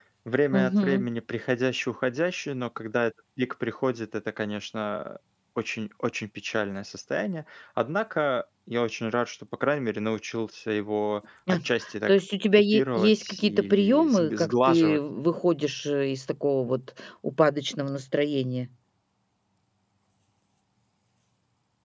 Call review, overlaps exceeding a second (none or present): present